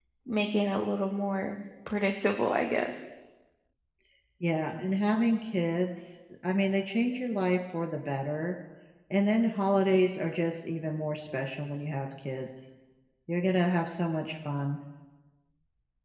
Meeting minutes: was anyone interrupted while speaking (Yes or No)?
No